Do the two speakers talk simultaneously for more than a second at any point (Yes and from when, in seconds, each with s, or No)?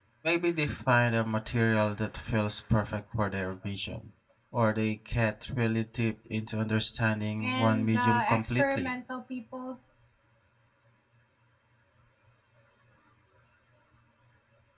Yes, from 7.4 s